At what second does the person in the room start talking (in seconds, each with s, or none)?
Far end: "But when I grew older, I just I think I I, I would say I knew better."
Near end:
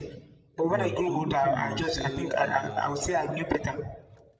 0.7 s